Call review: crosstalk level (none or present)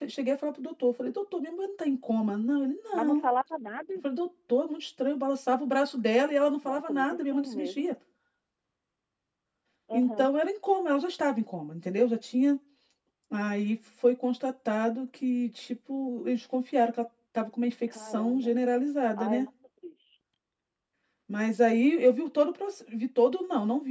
present